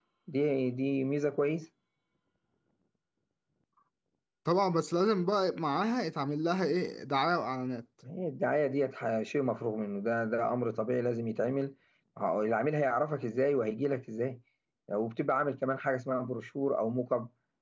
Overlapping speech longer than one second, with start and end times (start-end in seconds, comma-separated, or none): none